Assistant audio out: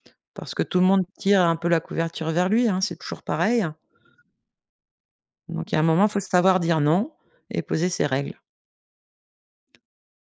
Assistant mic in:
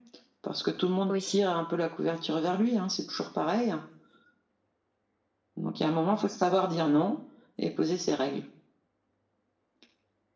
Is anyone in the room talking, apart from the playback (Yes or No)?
Yes